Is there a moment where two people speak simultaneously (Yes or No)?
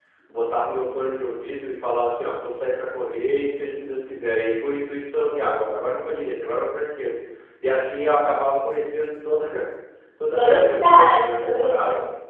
Yes